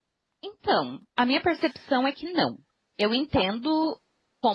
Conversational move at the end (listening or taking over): listening